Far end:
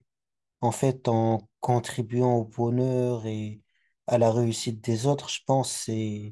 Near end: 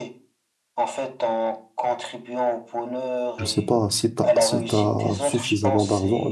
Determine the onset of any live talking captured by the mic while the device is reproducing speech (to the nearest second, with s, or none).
3 s